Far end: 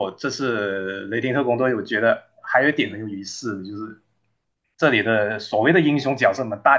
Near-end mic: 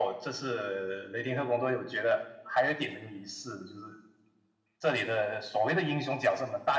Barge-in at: none

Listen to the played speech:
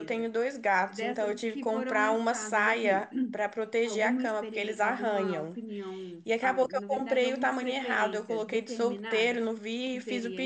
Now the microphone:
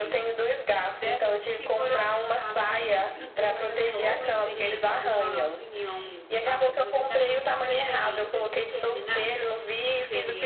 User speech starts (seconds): 3.3 s

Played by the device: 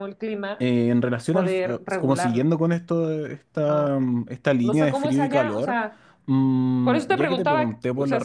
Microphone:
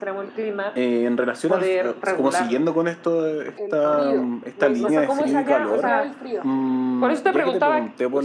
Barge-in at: 3.5 s

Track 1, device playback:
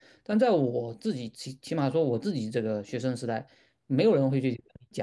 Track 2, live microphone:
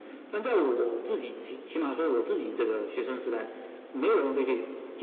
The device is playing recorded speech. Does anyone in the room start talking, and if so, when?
none

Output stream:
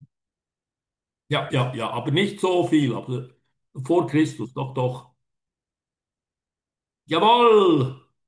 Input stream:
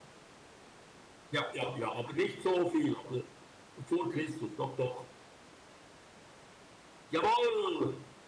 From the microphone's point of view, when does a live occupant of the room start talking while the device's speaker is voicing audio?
none

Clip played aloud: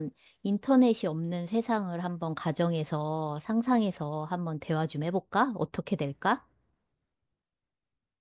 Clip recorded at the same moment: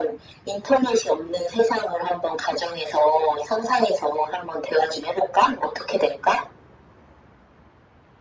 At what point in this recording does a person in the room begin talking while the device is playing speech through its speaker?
none

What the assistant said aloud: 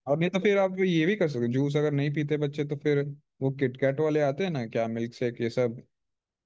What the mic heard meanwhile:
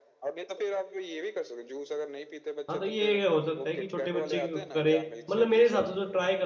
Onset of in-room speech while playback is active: 2.7 s

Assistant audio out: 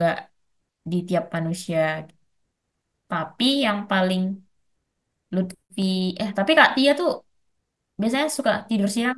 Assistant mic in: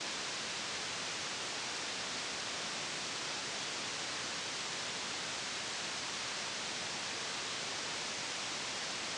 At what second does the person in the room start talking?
none

